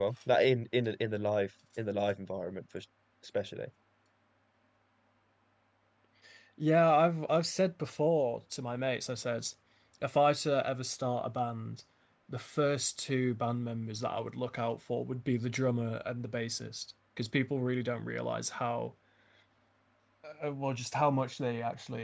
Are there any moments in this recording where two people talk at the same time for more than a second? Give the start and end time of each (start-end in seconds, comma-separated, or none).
none